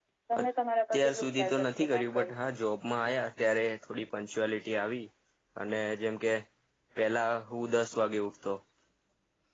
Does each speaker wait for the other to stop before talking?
No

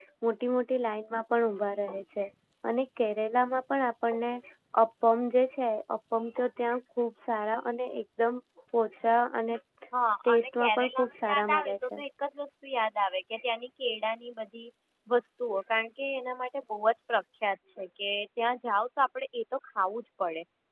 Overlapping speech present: Yes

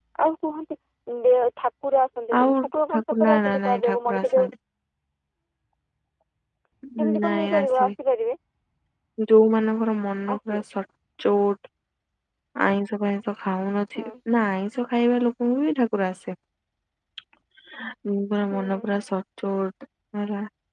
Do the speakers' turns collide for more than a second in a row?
Yes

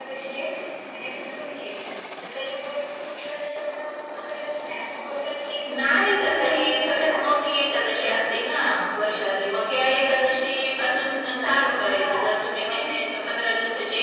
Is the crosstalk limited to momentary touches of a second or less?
No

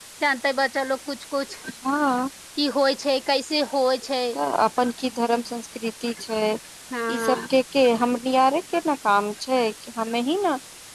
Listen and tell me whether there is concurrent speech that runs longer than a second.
No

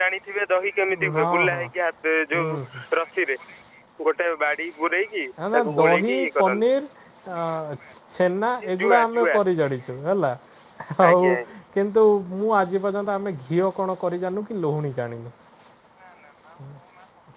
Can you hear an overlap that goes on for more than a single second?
Yes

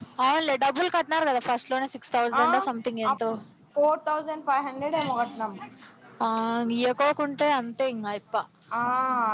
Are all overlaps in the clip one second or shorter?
Yes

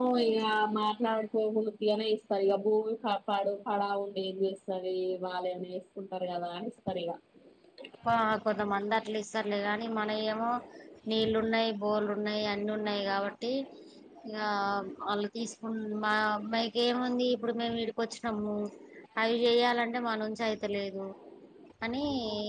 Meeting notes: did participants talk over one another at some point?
No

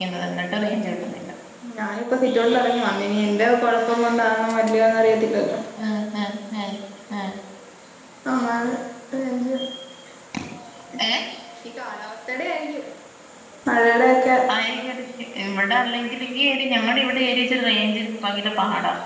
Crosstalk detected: No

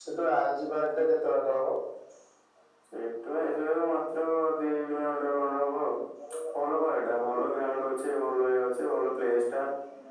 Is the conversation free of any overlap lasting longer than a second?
Yes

